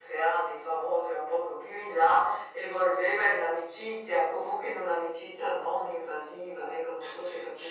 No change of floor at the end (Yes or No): No